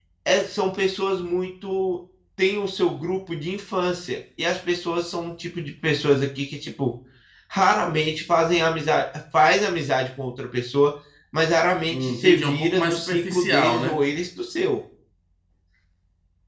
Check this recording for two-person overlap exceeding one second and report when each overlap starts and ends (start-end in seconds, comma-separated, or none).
11.9-14.1